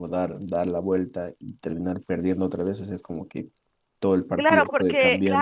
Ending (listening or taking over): taking over